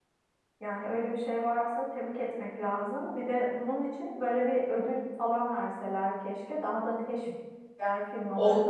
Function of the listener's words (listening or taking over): taking over